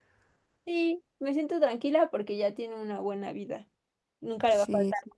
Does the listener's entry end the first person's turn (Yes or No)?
No